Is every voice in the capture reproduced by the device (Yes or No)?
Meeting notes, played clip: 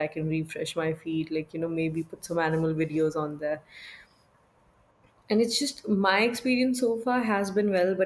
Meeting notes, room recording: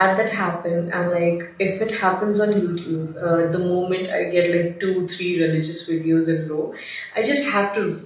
No